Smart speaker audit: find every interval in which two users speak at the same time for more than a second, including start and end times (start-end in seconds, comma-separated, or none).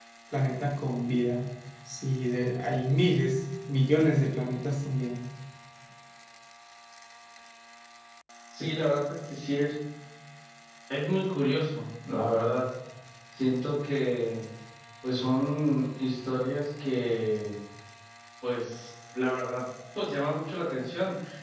none